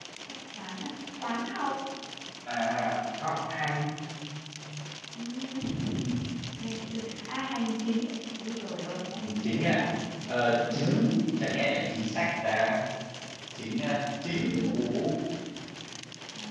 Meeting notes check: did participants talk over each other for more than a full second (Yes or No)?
No